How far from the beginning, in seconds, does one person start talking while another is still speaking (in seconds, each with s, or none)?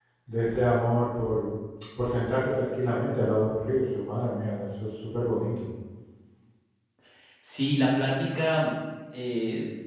none